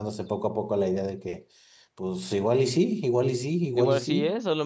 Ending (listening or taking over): taking over